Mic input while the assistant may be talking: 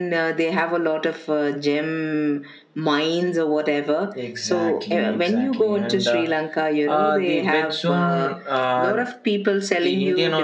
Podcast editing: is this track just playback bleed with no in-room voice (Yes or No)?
No